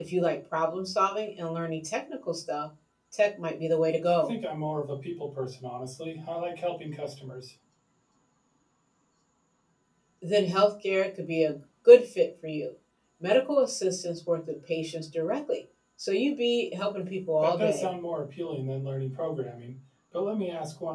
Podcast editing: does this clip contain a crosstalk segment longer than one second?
No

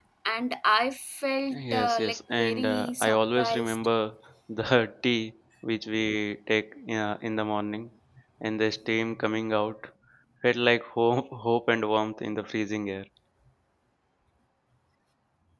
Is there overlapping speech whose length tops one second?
Yes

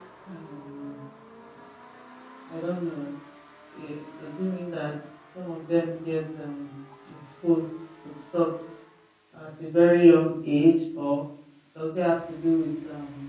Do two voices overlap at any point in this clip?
No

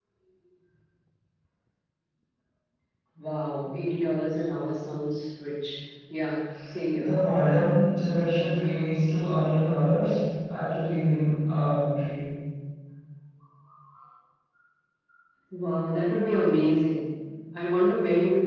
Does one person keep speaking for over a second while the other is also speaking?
No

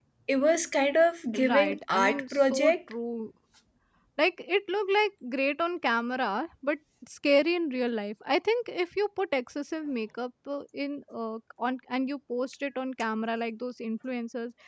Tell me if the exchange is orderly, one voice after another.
No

